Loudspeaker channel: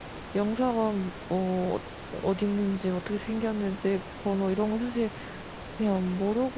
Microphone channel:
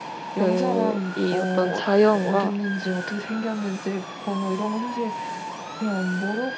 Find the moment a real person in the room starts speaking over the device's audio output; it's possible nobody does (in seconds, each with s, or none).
0.3 s